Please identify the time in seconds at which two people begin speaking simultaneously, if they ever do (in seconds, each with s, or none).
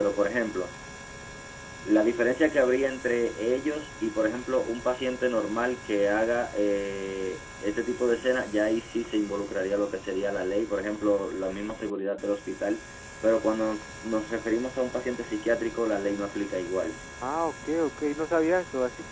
none